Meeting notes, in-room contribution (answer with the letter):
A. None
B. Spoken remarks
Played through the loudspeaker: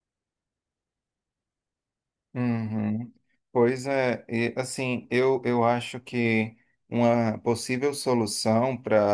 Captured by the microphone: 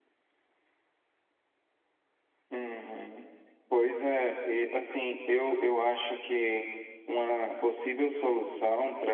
A